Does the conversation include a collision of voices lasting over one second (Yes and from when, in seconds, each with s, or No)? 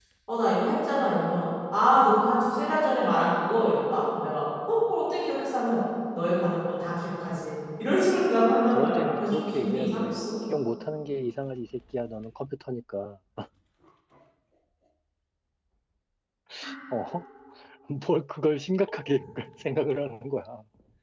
Yes, from 8.7 s